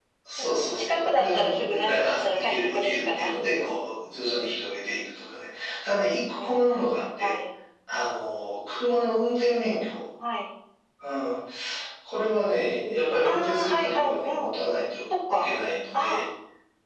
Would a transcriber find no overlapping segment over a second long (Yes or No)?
No